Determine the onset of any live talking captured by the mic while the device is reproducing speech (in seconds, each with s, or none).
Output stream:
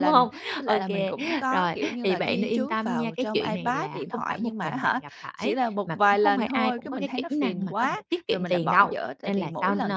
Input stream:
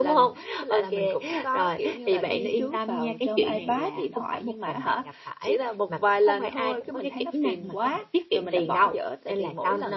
none